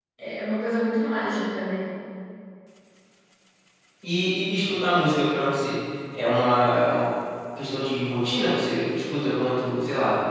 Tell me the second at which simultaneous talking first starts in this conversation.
none

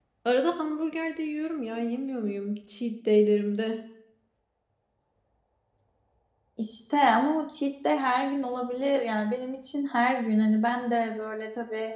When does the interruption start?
none

